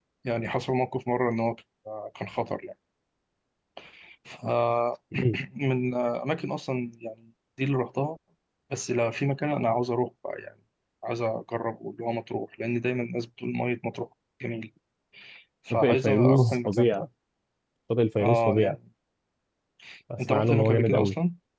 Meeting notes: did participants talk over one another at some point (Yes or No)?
Yes